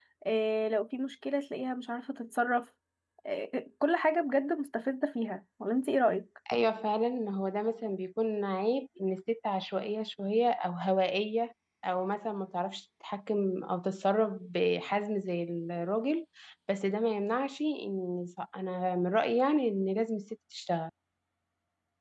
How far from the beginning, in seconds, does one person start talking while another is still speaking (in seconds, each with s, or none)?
none